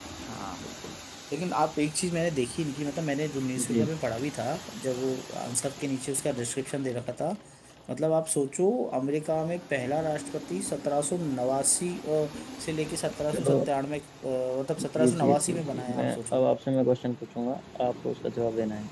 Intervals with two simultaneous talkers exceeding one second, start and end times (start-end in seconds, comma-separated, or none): 14.8-16.4